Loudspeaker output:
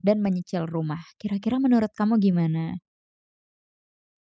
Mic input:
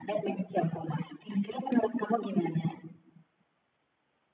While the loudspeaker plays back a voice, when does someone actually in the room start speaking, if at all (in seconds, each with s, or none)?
none